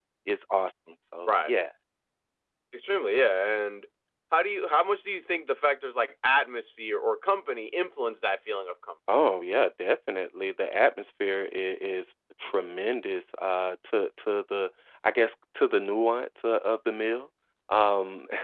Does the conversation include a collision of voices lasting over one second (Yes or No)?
No